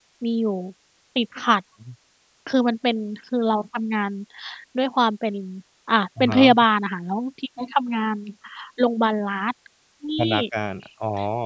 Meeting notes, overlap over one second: none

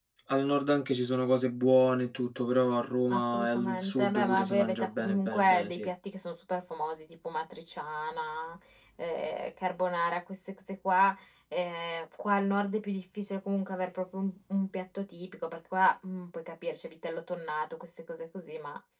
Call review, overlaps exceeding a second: present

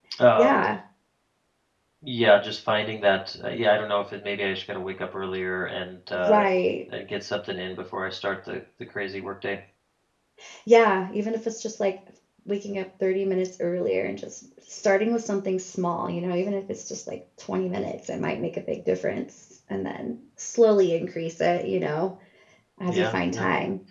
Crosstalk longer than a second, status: none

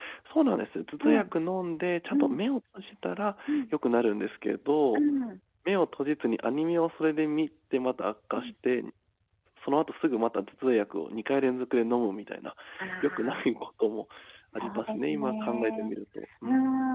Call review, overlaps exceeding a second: present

